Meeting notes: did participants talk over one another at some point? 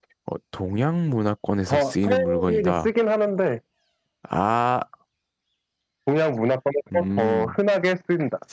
Yes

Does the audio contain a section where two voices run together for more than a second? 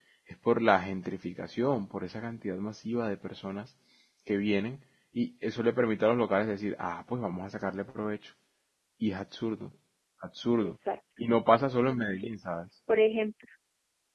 No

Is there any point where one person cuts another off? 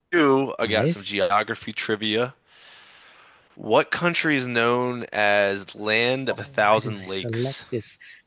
Yes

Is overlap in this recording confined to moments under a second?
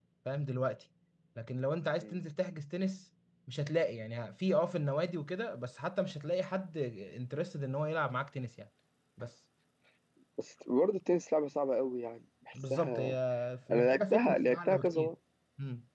No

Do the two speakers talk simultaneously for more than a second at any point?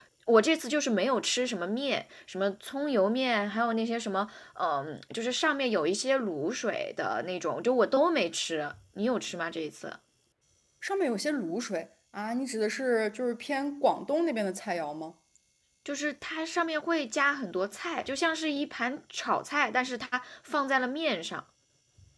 No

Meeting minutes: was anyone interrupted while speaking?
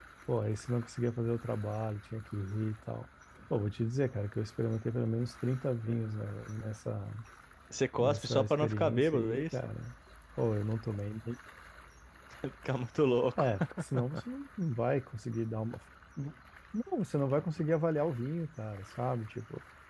Yes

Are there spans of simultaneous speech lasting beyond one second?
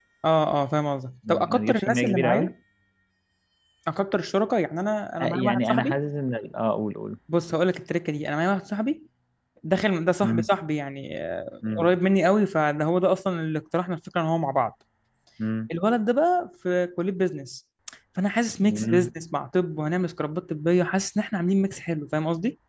Yes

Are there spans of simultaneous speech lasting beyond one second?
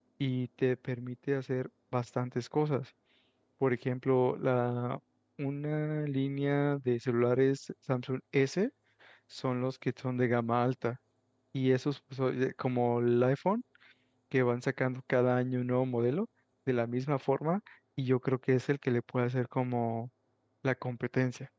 No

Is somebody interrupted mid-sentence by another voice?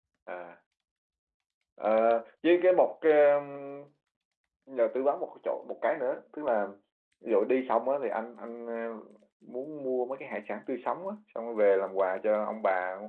No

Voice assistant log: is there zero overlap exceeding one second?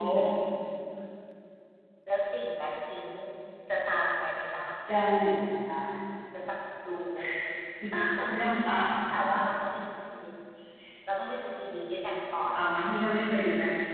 Yes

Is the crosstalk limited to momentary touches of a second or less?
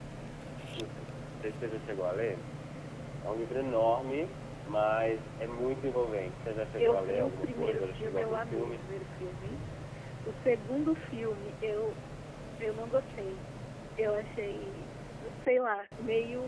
No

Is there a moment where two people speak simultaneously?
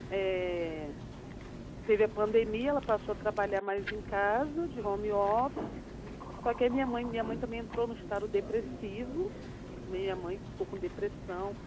No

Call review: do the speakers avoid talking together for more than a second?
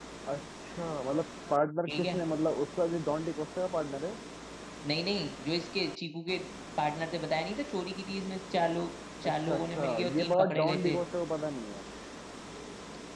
No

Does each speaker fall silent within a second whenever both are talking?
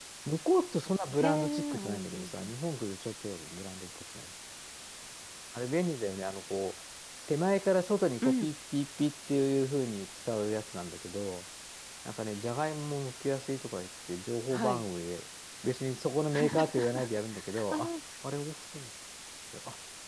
No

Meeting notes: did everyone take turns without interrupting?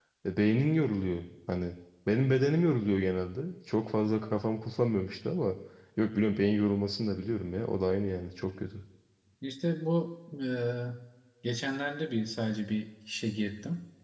Yes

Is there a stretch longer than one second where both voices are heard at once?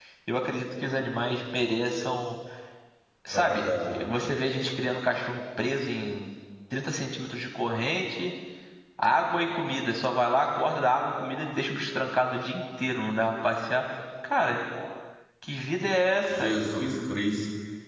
No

